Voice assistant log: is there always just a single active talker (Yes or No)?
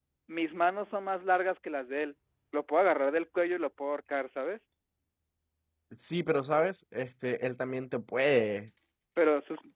Yes